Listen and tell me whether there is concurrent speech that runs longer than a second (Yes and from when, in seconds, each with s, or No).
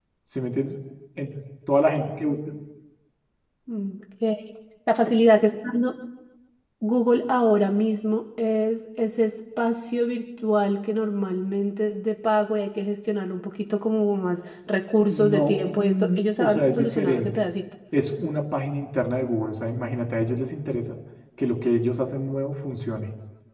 Yes, from 15.0 s